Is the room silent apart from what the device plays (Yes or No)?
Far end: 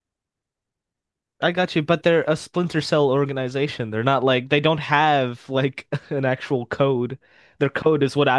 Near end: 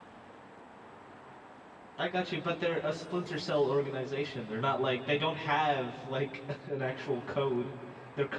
Yes